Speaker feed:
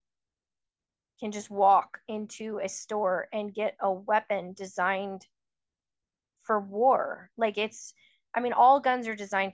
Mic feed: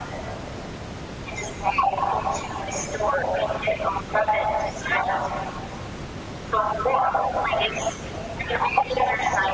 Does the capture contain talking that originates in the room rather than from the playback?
No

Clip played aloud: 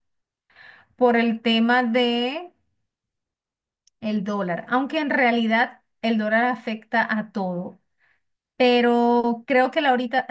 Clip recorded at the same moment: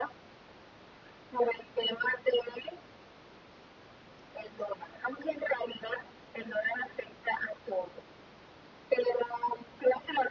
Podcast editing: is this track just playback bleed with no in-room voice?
Yes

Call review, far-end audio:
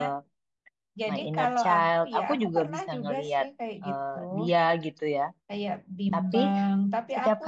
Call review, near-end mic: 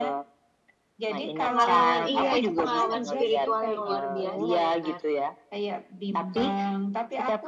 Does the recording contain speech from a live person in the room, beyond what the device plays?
Yes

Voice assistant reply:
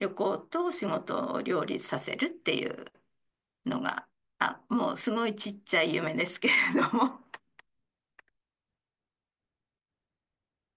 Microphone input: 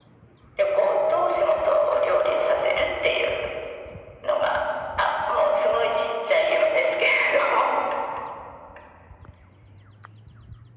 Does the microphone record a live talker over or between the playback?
No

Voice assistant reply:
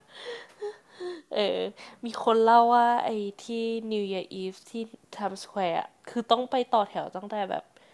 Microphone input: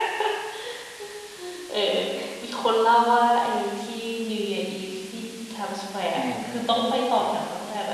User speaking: Yes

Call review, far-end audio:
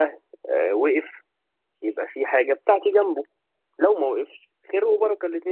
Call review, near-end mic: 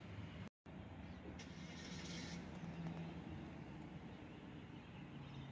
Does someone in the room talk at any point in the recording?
No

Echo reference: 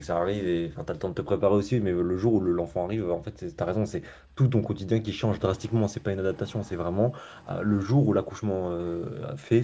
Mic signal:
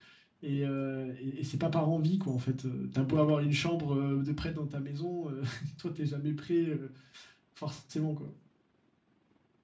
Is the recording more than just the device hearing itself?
Yes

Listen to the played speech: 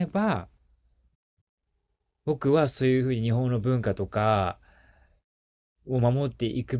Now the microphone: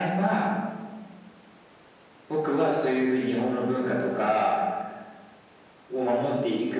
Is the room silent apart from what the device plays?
Yes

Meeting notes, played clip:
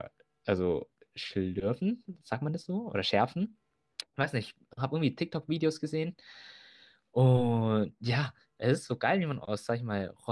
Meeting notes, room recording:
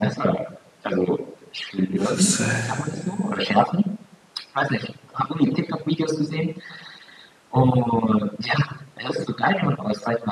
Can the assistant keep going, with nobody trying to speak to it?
No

